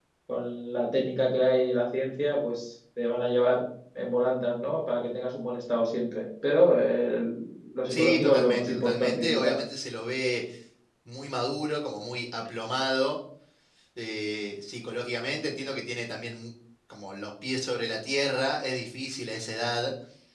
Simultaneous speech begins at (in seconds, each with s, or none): 7.9 s